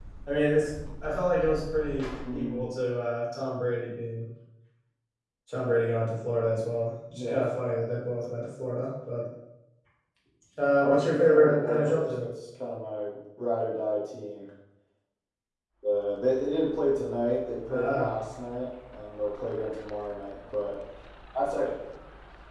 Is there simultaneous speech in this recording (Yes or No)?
Yes